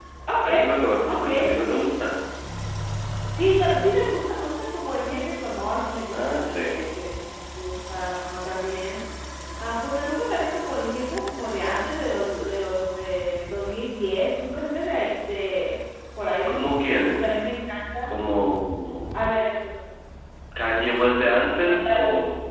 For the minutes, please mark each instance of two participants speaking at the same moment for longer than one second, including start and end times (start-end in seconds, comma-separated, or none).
none